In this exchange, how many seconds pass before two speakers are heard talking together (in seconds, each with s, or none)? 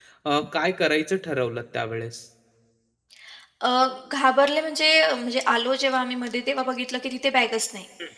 none